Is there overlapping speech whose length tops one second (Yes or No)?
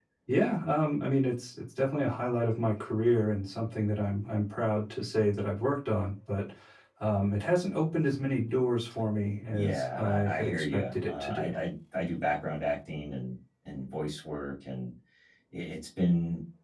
Yes